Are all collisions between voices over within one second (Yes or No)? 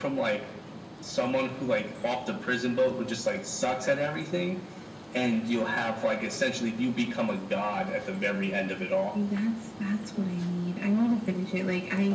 Yes